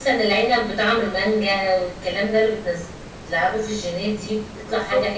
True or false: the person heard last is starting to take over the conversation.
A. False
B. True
A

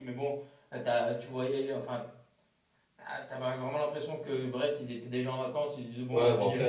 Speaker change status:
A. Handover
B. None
A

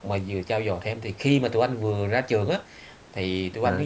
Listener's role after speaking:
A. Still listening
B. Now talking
A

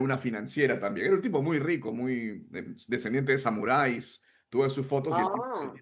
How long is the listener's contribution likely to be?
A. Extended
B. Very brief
B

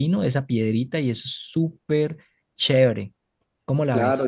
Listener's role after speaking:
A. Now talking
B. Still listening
A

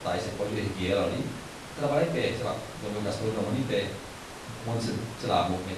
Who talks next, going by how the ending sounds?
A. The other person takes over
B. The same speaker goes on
B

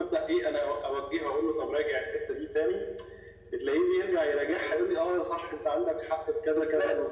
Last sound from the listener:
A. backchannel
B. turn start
B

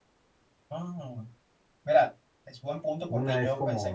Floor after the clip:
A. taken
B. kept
A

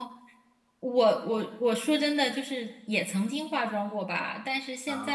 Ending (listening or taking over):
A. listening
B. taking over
A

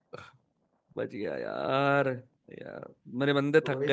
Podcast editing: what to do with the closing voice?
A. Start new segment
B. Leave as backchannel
A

